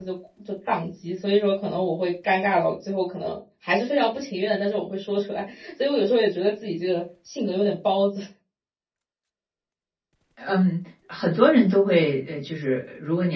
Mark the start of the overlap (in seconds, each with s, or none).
none